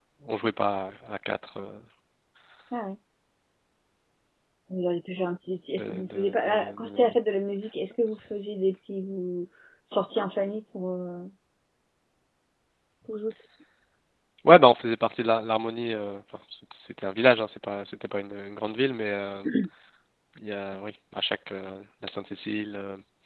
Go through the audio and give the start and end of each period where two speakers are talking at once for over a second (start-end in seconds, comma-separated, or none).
5.8-7.2